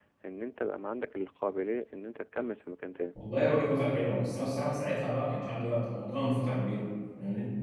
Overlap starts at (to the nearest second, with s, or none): none